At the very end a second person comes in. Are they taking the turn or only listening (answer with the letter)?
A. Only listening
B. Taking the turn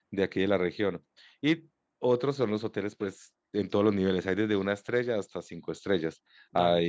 A